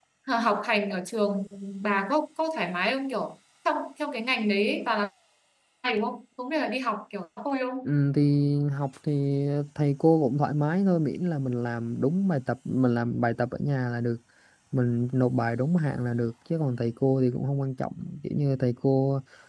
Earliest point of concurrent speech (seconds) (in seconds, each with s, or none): none